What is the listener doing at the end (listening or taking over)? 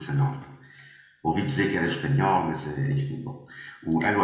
listening